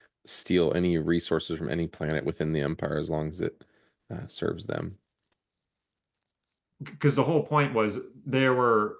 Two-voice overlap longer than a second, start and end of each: none

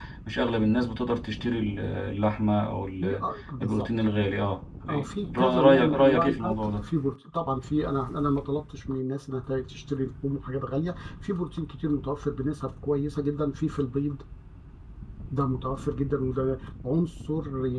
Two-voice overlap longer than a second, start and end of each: 4.9-6.8

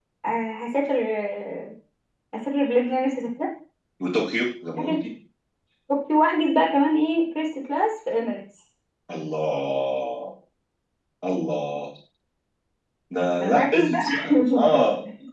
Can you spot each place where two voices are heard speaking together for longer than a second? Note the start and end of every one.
13.4-14.8

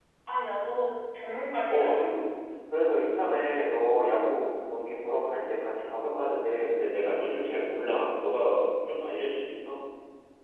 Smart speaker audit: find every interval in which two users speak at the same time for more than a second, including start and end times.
none

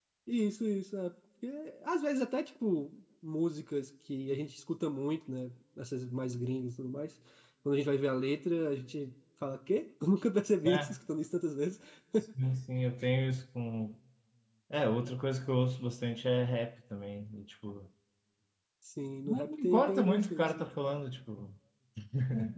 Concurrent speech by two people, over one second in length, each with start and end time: 19.3-20.7

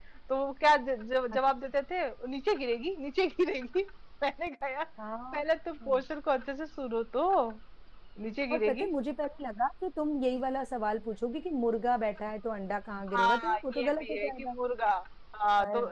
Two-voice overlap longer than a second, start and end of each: 13.1-14.6

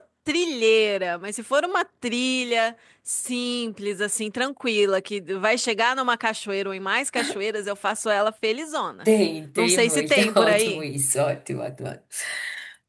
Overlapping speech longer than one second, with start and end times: 9.6-10.8

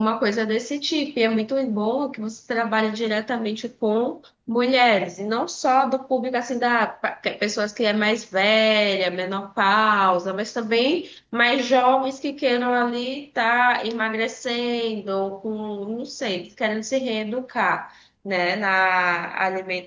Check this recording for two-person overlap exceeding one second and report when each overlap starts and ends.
none

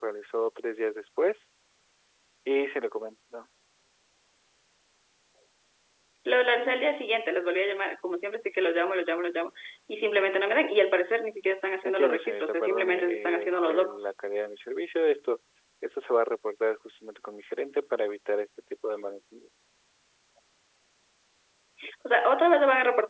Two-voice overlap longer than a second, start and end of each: 11.8-14.1

